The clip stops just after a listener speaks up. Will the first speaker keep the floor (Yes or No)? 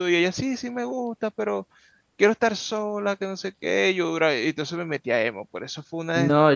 No